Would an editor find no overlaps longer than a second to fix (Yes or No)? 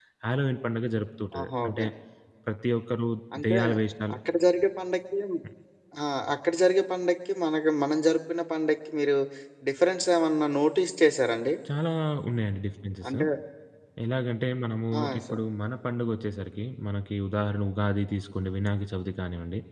Yes